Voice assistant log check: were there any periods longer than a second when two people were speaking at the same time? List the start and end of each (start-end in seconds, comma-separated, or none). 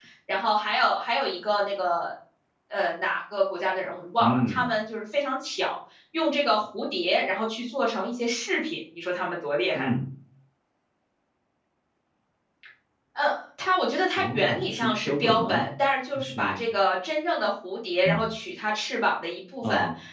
14.2-15.7